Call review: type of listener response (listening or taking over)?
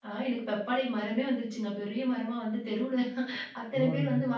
listening